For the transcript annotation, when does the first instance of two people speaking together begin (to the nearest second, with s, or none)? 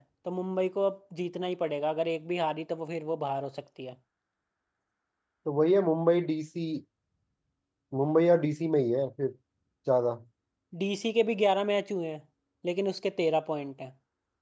none